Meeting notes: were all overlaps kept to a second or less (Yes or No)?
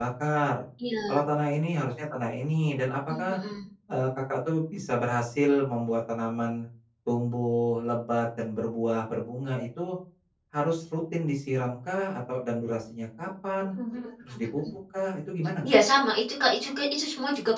Yes